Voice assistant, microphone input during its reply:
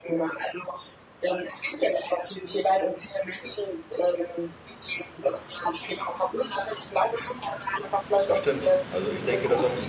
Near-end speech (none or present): present